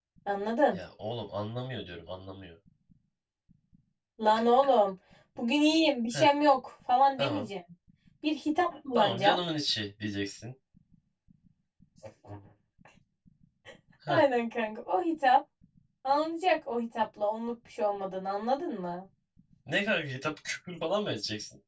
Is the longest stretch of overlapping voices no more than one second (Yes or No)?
Yes